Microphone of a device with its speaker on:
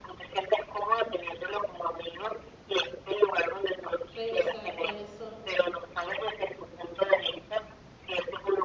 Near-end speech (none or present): present